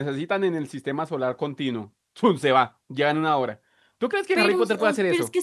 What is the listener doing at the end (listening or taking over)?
taking over